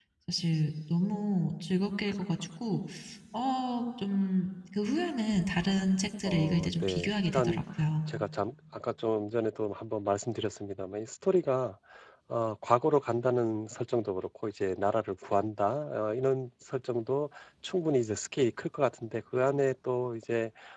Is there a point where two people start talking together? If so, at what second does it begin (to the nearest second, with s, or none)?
6 s